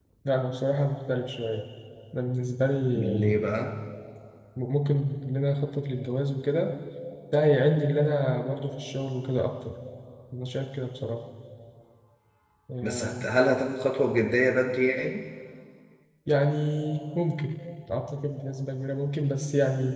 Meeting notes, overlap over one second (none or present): none